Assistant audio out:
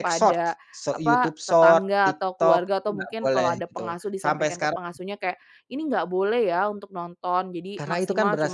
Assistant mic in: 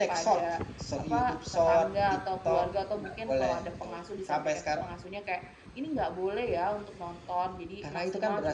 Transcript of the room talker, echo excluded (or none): none